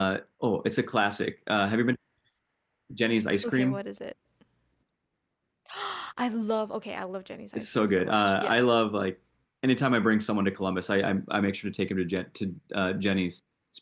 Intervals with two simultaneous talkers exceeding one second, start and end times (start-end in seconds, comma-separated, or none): 7.5-8.8